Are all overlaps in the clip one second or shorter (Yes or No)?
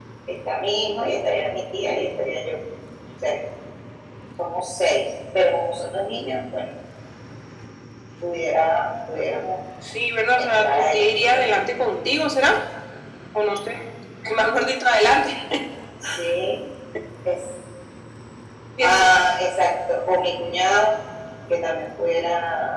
No